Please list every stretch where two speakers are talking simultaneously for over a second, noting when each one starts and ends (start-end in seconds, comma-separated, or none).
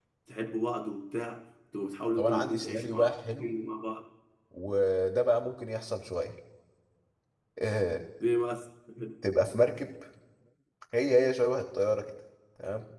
2.2-3.5